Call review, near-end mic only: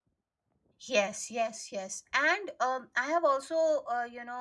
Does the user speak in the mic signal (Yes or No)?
Yes